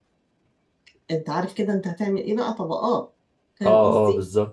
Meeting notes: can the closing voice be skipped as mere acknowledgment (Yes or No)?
No